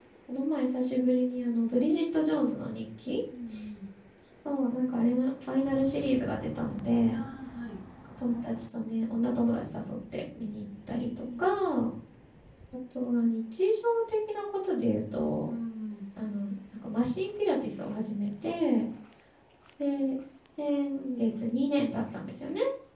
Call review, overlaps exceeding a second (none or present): none